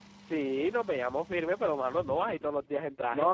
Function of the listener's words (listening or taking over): taking over